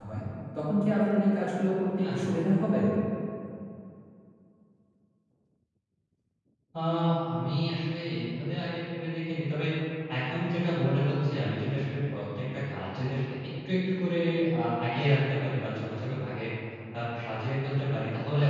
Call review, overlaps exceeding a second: none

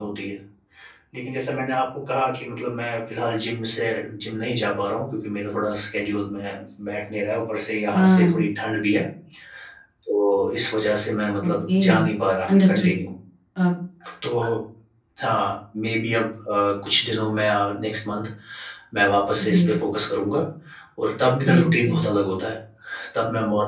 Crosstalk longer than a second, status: none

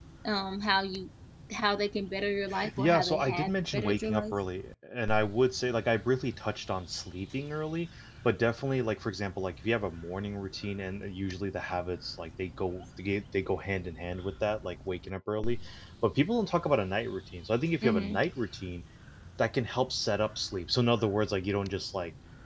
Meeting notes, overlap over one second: present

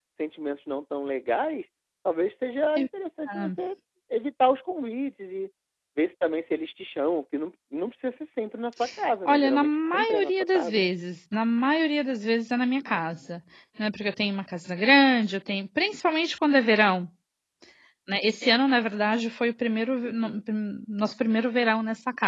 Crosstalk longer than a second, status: present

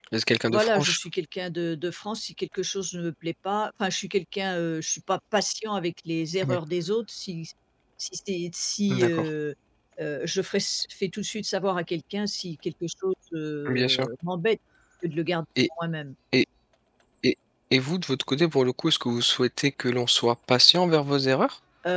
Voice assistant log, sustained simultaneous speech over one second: none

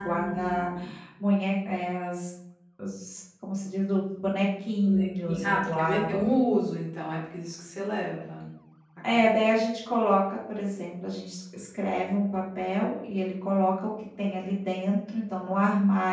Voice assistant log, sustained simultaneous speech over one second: present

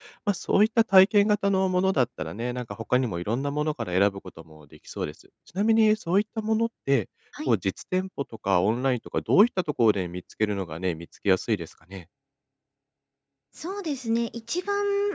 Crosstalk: none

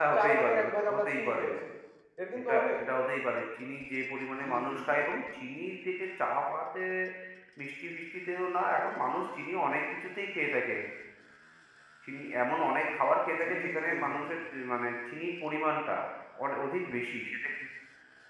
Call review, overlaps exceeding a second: present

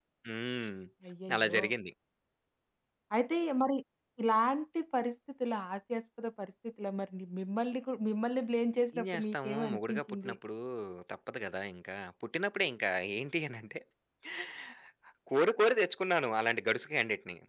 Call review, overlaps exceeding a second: present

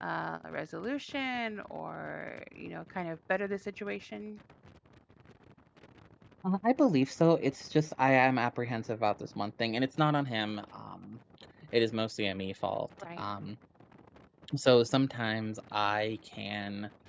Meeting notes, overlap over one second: none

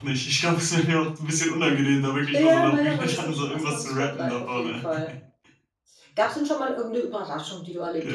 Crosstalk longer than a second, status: present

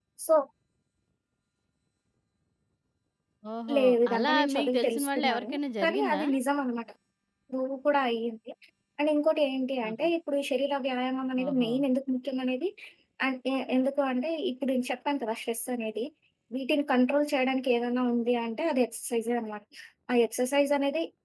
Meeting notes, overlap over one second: present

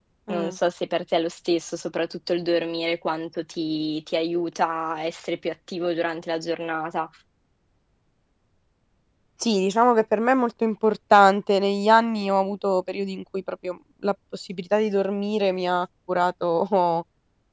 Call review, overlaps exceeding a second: none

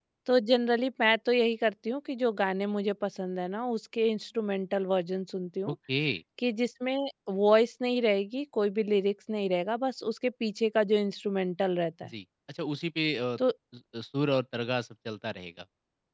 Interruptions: none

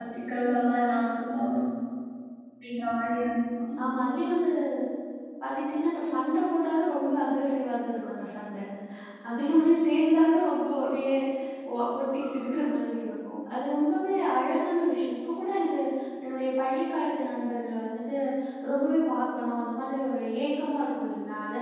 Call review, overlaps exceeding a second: none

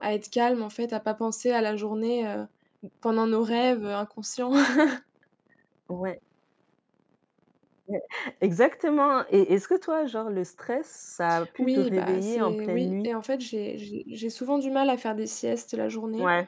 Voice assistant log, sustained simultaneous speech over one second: present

